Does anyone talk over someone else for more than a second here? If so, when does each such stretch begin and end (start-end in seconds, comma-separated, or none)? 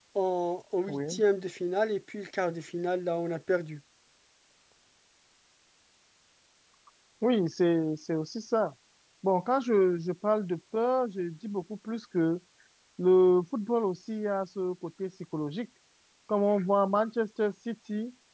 none